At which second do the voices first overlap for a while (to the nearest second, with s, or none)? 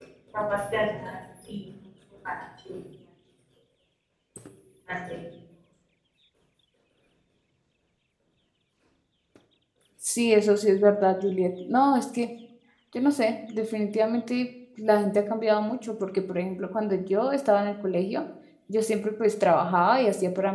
none